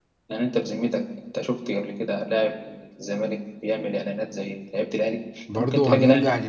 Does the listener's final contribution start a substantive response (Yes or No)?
Yes